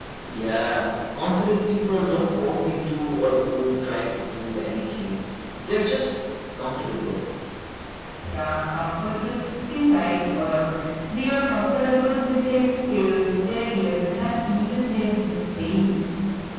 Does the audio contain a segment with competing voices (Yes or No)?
No